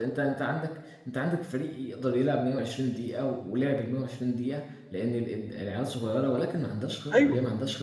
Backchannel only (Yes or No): Yes